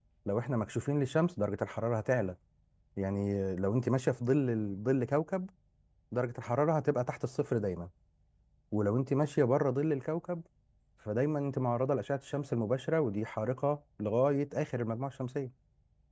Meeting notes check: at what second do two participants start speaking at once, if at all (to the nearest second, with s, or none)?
none